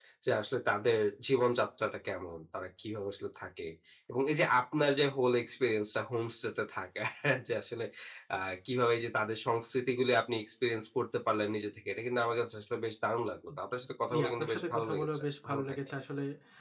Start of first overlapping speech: 14.1 s

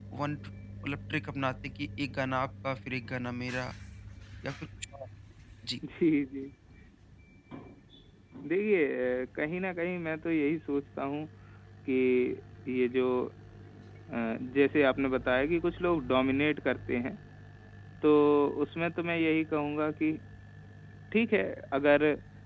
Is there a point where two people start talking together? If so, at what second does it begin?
none

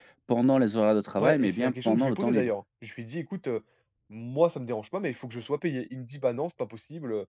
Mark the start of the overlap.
1.2 s

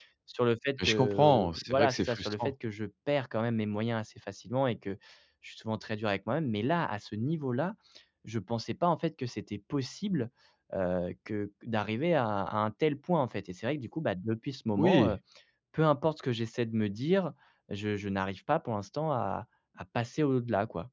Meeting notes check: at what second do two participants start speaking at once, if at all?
0.8 s

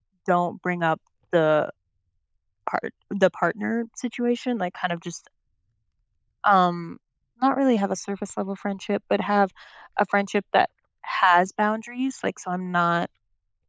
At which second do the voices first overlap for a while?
none

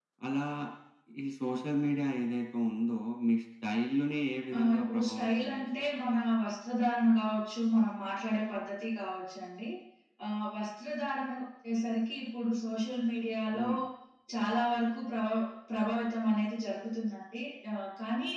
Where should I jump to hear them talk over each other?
4.6 s

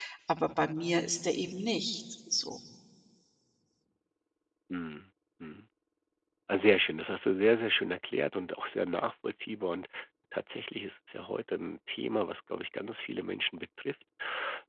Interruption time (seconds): none

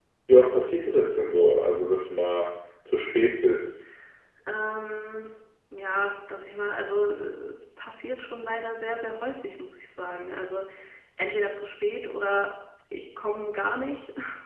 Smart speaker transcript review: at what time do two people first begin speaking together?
none

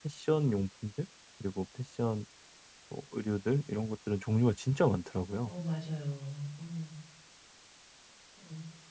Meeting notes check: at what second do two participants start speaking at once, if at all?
none

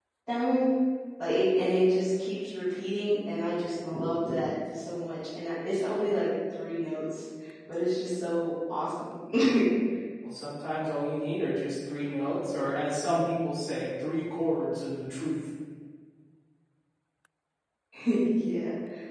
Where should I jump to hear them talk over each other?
none

